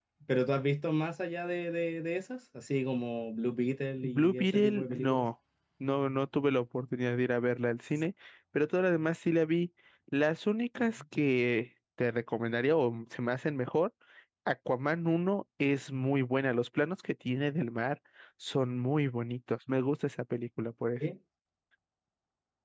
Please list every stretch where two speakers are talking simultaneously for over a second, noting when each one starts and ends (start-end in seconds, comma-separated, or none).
4.0-5.2